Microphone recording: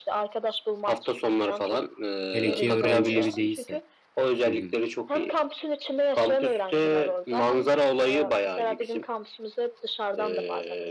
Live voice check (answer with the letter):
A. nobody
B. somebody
B